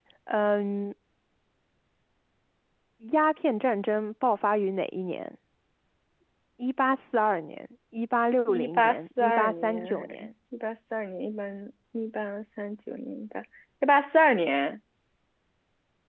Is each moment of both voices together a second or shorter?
No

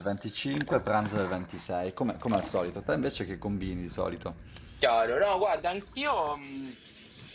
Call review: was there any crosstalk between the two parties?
No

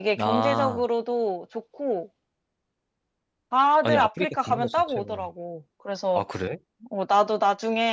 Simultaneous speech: Yes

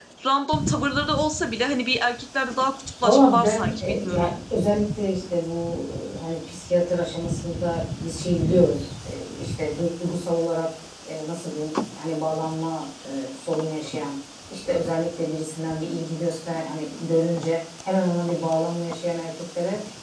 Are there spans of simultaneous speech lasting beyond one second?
Yes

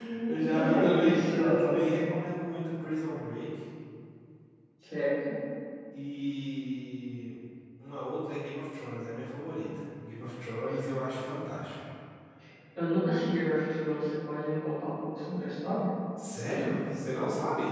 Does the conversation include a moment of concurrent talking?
Yes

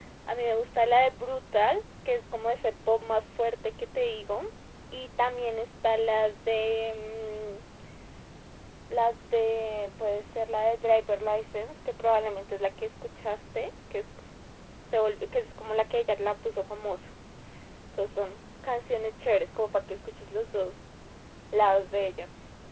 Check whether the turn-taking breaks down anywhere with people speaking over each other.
No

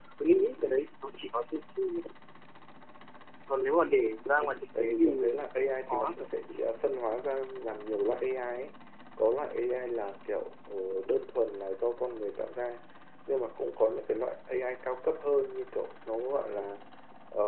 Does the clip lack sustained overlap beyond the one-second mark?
No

